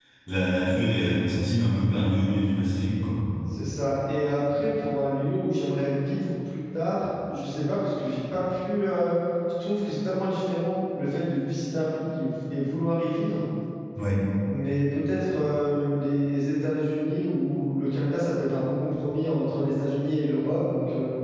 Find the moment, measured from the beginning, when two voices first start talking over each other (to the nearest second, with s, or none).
none